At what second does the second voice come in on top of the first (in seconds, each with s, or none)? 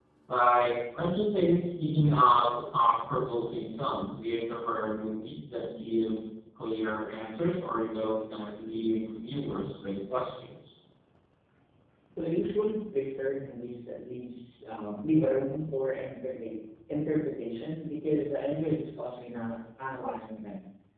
none